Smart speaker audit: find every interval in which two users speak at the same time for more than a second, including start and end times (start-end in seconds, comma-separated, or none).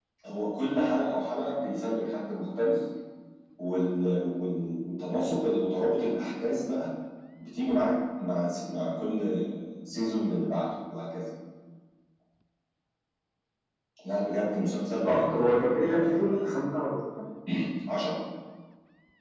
15.0-16.3